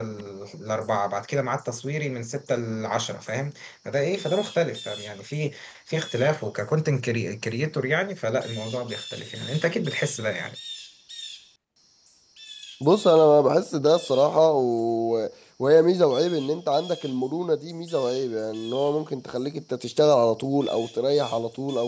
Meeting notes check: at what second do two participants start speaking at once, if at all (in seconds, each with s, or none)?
none